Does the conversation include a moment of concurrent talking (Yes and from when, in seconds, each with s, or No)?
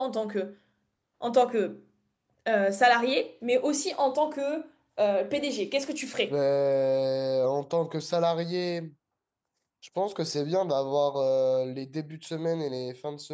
No